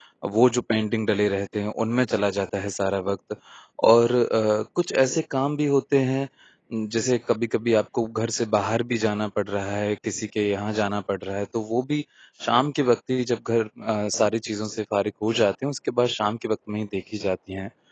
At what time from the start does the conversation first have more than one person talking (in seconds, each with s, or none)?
none